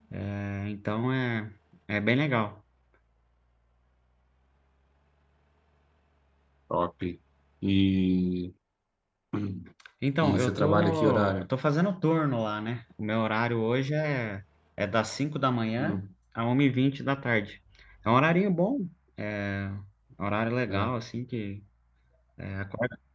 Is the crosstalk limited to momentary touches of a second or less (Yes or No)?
No